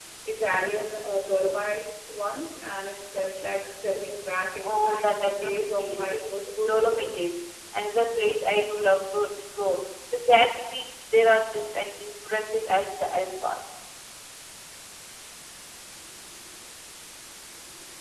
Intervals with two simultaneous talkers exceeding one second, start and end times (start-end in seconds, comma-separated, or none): 4.6-7.2